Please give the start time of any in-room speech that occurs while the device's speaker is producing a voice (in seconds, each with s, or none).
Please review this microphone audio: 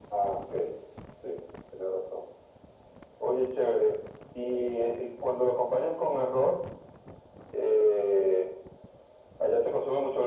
none